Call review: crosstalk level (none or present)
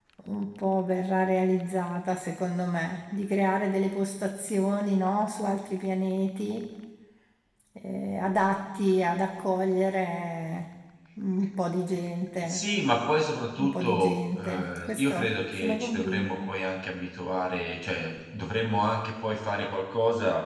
present